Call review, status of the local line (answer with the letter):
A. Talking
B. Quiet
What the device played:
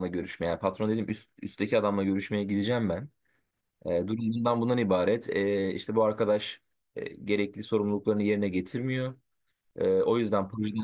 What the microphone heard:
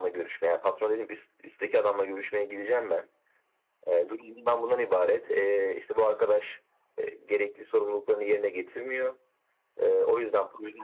B